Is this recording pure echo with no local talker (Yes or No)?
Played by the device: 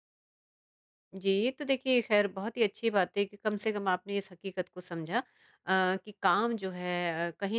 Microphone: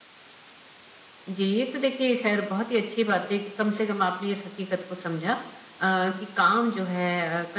Yes